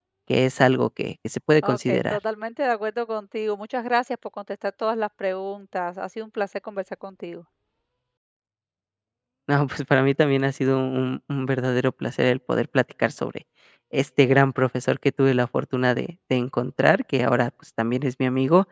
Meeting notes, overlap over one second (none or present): none